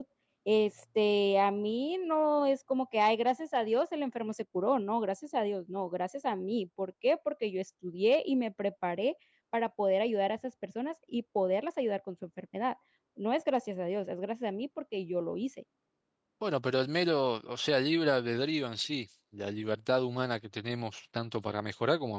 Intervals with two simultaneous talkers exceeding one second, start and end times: none

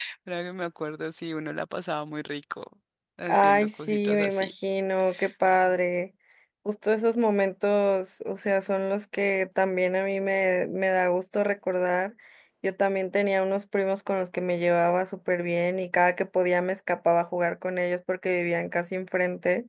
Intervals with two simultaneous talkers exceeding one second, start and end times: 3.3-4.5

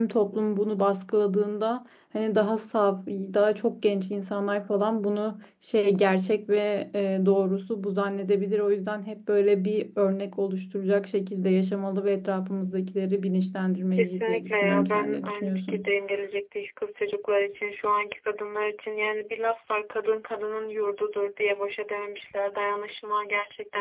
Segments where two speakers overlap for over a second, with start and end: 14.0-15.9

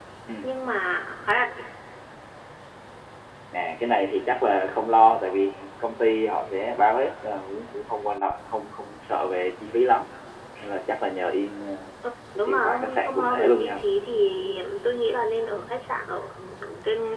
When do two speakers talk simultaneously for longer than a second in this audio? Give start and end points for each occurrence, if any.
12.4-13.8

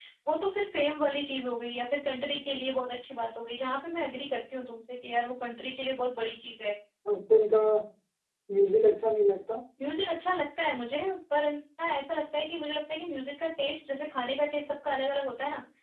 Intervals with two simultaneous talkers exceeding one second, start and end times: none

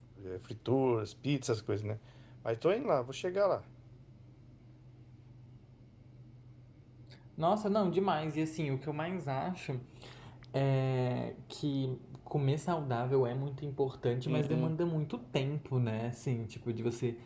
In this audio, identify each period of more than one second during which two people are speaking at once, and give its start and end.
none

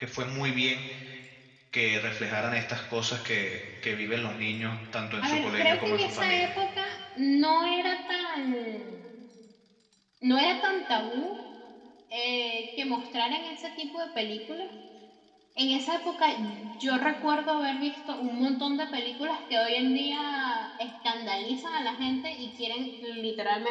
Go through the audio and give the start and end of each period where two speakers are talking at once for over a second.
5.2-6.6

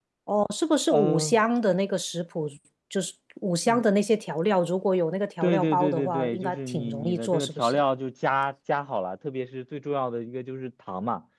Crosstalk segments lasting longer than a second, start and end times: 5.4-7.8

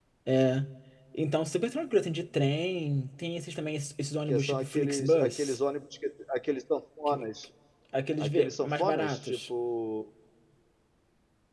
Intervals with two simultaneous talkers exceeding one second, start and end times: 4.3-5.6, 8.2-9.4

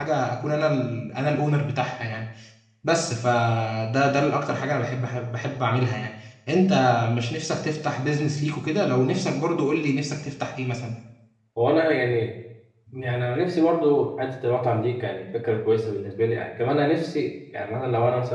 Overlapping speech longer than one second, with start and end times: none

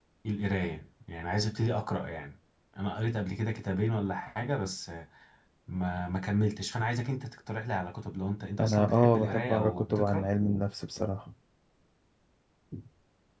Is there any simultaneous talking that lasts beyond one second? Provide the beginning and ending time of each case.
8.6-10.2

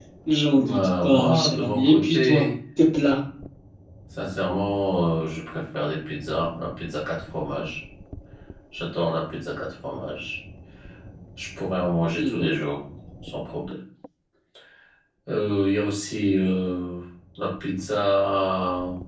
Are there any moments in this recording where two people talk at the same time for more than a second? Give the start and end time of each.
0.6-2.5

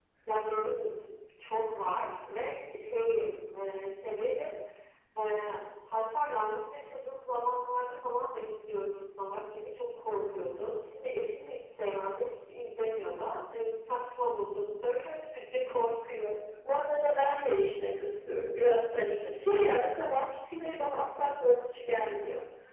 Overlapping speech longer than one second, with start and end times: none

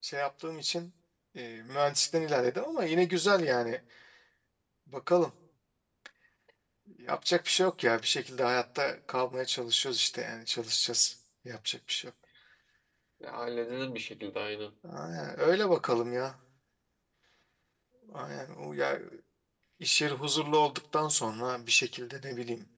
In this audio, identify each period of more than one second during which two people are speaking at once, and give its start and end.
none

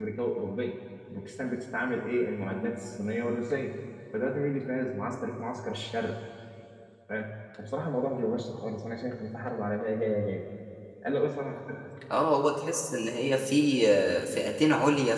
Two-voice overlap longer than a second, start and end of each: none

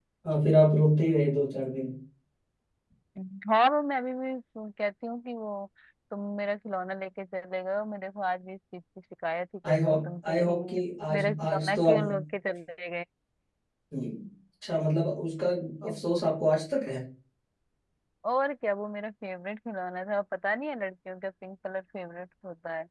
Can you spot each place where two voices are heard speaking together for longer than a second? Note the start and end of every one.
9.7-12.0

